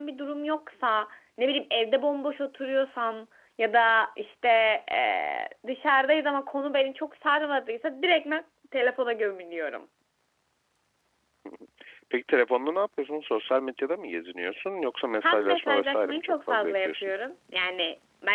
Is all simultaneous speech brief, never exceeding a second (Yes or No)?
No